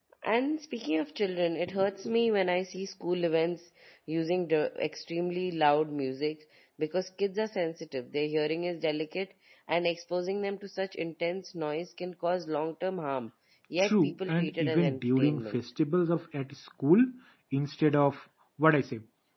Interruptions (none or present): present